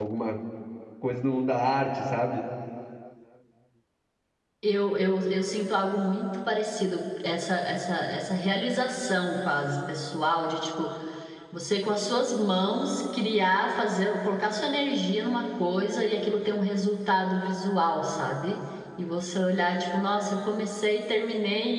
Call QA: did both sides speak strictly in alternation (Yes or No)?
Yes